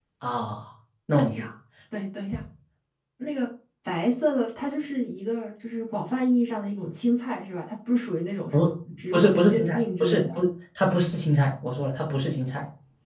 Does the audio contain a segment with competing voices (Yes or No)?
Yes